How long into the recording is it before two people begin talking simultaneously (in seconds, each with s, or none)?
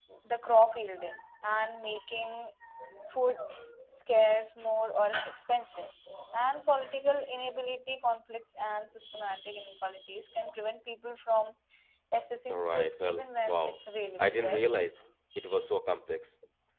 12.5 s